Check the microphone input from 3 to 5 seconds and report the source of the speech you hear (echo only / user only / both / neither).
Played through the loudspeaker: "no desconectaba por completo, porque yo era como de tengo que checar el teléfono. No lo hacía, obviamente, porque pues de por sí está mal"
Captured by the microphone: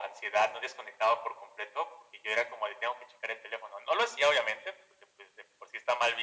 echo only